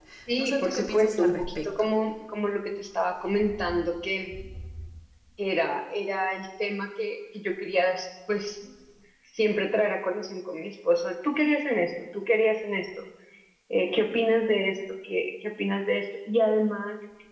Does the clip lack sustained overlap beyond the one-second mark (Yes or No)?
No